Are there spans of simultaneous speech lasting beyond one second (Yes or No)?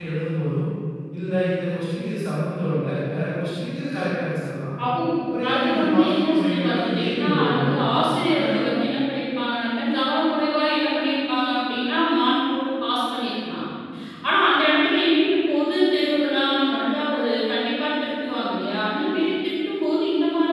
Yes